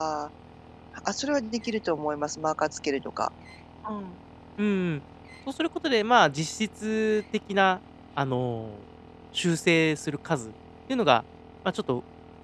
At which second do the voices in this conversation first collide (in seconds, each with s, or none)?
none